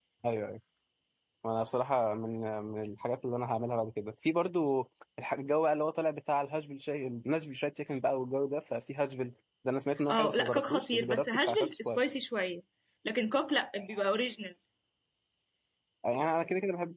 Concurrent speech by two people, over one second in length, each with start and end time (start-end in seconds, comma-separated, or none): 10.1-12.0